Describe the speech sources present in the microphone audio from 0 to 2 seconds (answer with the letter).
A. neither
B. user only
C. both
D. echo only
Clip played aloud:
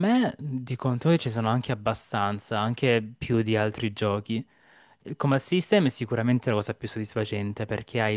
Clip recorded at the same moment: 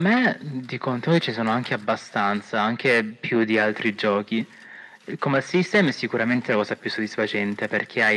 D